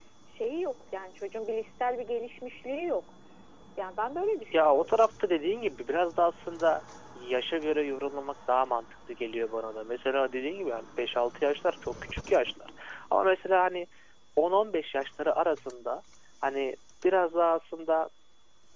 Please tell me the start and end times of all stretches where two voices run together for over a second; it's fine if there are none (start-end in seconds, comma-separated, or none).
none